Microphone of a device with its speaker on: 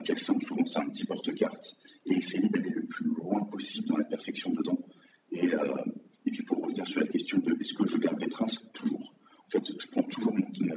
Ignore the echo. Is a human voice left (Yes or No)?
No